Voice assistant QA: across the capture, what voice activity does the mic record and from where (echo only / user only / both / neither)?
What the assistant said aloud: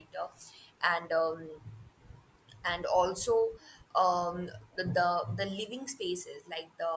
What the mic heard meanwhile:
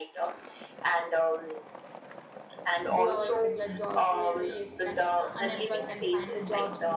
both